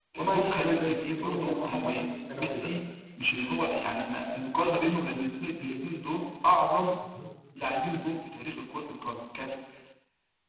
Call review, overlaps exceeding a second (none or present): present